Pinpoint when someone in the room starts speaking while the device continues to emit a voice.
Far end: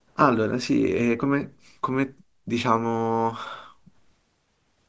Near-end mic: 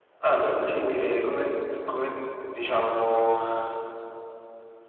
none

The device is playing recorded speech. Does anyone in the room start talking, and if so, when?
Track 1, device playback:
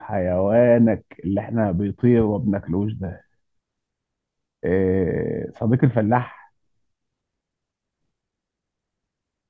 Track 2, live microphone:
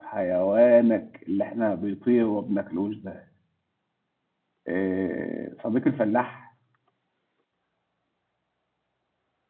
none

